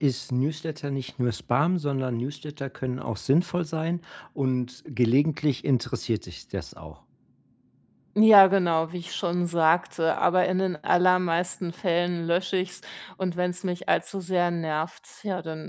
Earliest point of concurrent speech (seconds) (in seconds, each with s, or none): none